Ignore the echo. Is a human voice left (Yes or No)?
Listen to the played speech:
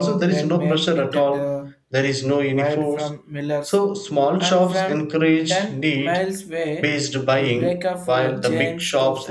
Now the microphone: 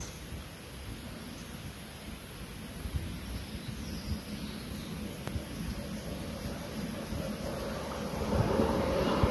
No